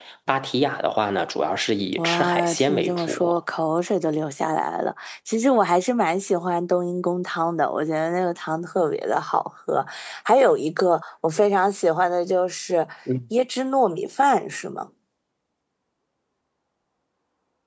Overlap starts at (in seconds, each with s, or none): 2.0 s